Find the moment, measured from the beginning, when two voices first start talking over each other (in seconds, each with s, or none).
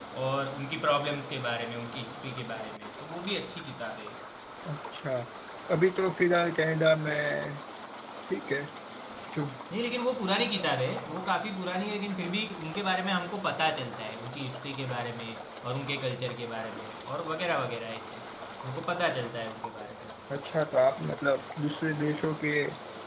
none